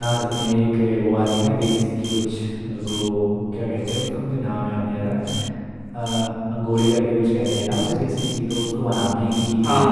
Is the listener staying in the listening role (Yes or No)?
Yes